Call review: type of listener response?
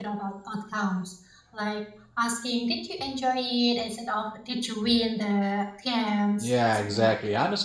taking over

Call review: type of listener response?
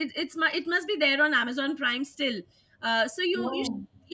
listening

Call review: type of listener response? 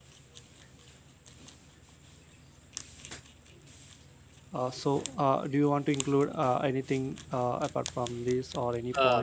taking over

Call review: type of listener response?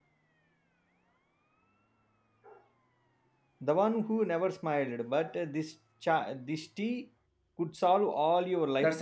taking over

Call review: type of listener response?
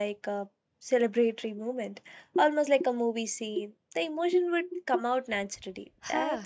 taking over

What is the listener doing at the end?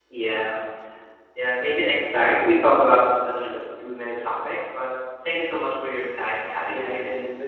taking over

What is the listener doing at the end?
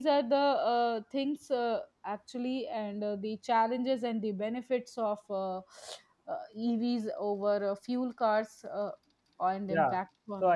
taking over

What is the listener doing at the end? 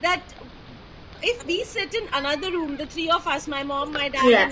listening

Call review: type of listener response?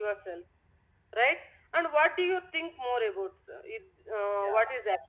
taking over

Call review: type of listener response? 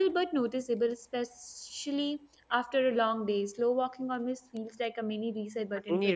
taking over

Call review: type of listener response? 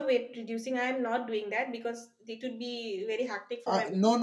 taking over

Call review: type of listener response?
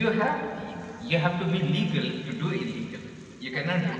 listening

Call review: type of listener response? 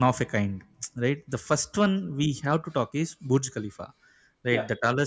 listening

